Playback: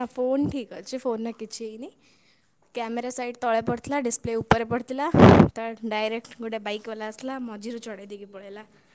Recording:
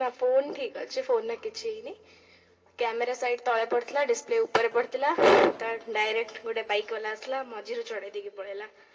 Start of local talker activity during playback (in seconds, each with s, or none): none